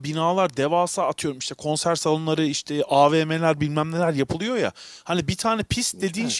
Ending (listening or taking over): listening